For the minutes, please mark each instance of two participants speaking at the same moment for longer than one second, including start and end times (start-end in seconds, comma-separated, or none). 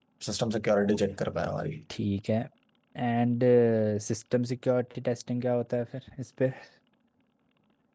none